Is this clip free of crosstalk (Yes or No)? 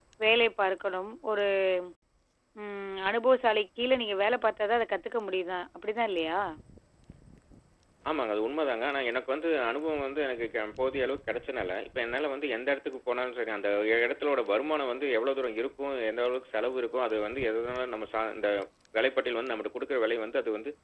Yes